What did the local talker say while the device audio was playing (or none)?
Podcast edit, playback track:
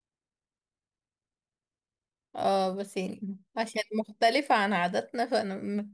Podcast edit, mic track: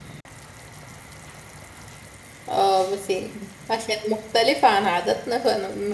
none